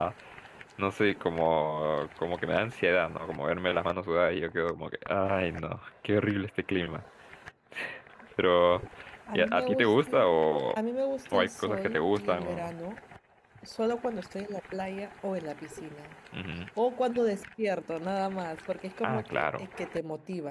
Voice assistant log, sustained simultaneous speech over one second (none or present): present